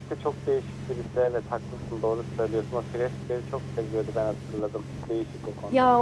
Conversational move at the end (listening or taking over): taking over